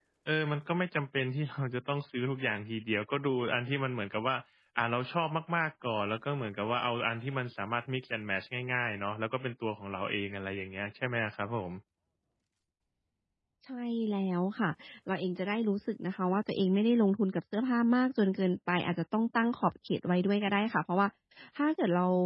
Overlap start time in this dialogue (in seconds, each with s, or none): none